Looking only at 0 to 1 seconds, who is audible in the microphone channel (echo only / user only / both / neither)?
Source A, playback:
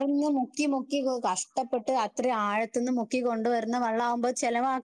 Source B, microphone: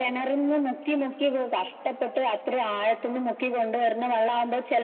echo only